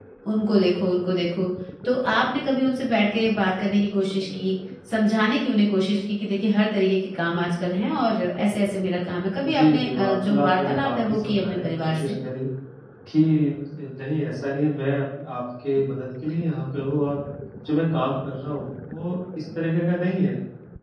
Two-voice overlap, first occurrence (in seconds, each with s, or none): 9.4 s